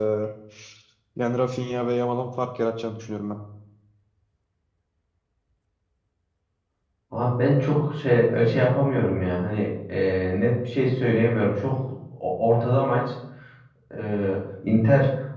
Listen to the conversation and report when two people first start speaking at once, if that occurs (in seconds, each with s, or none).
none